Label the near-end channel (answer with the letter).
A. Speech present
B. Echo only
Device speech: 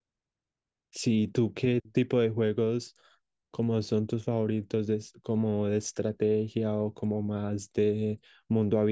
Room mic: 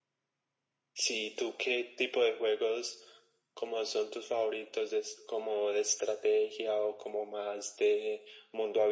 B